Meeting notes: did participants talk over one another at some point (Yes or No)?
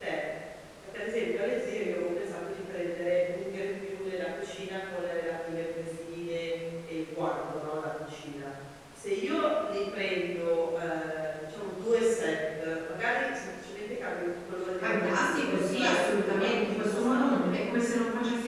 Yes